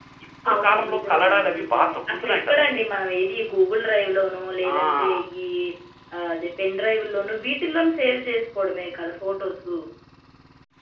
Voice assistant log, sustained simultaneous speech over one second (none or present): present